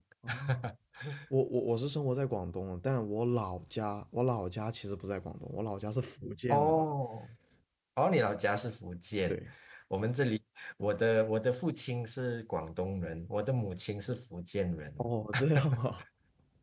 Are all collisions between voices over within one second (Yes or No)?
Yes